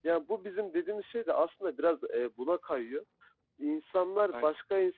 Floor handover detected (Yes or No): No